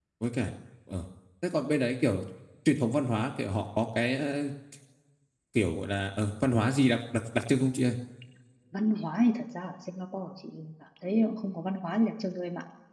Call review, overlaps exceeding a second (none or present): none